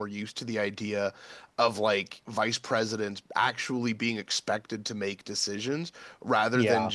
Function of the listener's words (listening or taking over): listening